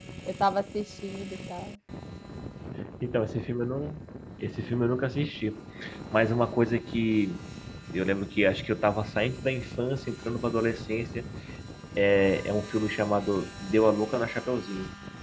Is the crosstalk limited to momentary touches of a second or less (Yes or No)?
Yes